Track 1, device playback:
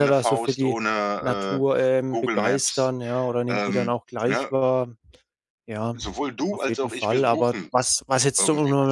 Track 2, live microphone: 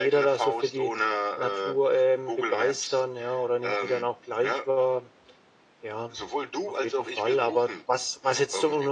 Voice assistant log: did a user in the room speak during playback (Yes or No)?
No